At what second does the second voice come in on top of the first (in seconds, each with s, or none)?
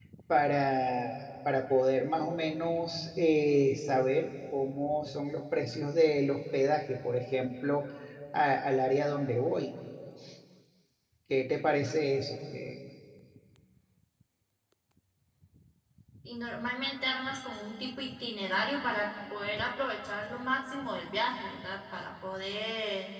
none